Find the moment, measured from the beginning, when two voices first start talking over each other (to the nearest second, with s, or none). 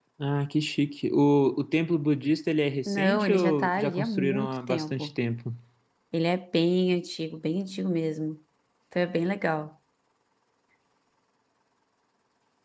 3 s